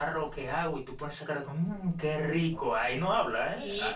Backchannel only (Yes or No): No